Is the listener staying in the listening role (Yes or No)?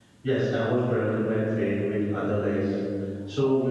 No